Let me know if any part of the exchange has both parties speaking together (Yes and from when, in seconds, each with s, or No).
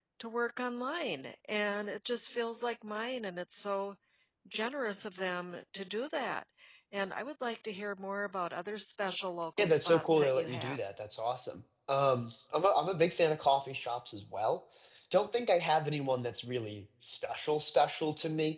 Yes, from 9.6 s